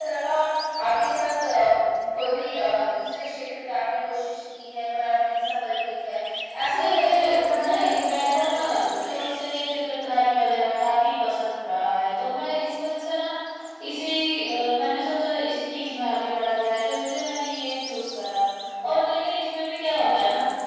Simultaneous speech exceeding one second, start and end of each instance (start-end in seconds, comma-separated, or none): 6.7-9.2